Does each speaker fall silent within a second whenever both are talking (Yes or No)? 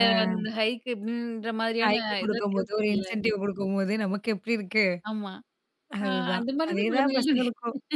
No